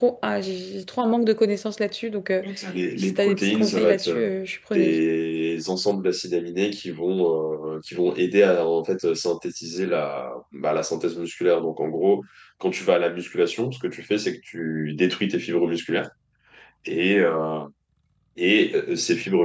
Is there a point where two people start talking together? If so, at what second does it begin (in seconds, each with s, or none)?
3.0 s